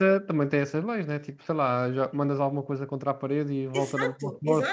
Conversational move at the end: taking over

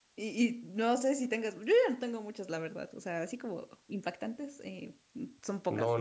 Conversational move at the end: taking over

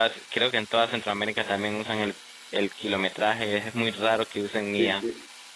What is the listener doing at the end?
taking over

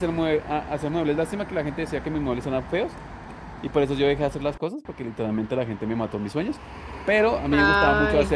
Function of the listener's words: listening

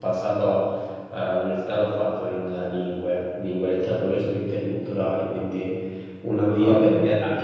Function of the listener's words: listening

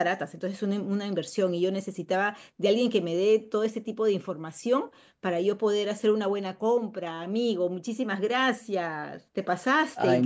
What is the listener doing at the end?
taking over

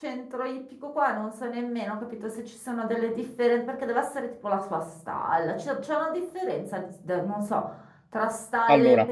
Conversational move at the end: listening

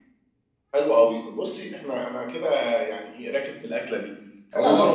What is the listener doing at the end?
listening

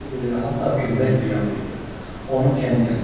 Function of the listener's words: listening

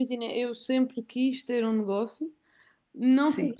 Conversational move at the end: listening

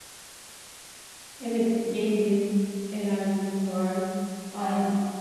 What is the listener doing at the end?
listening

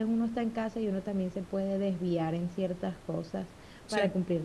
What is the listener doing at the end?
listening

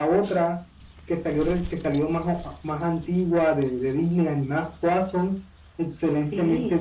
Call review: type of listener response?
taking over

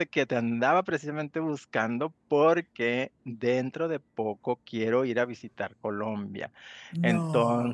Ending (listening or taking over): listening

